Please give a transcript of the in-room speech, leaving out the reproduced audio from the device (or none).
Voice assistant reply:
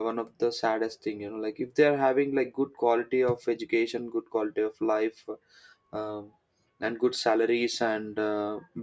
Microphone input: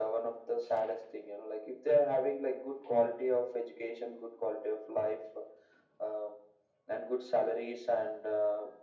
none